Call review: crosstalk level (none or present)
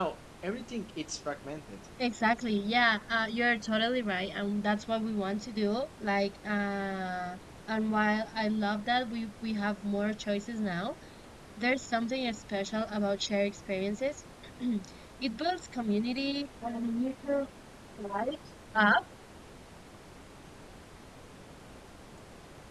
none